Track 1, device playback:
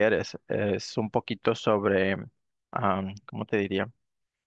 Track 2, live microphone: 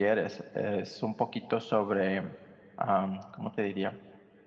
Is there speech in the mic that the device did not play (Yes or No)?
No